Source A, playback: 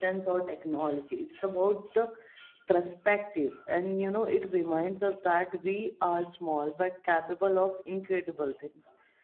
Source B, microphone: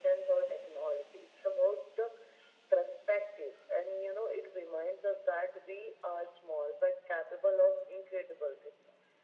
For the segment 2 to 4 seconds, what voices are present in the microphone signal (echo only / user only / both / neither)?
echo only